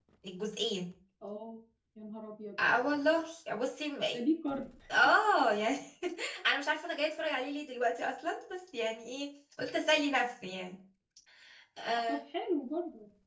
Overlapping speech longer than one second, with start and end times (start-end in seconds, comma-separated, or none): none